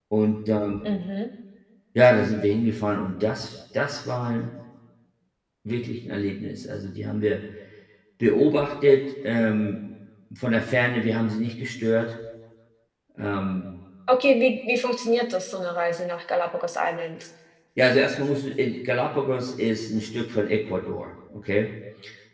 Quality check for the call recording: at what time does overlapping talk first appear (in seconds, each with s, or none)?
none